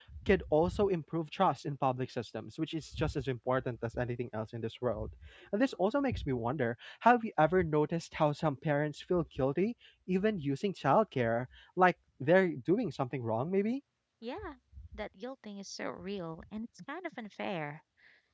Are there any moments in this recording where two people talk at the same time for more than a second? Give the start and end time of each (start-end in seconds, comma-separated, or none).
none